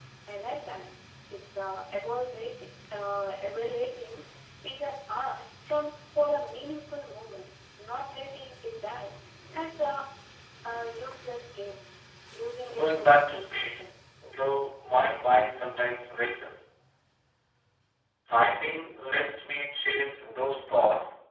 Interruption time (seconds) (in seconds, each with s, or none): 12.7 s